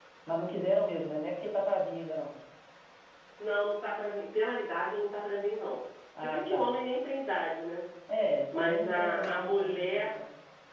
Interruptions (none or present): present